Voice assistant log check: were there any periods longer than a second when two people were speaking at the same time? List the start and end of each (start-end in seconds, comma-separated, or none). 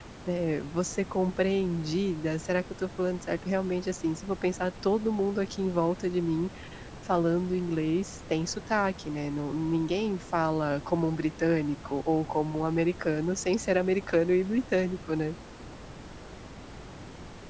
none